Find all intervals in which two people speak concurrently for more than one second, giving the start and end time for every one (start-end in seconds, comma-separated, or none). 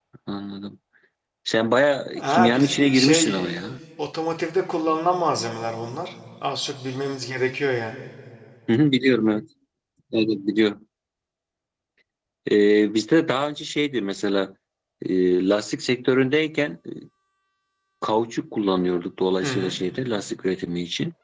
2.2-3.5